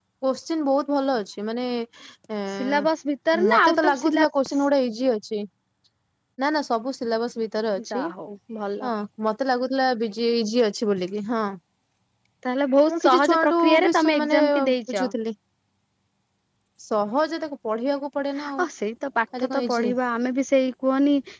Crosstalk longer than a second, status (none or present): present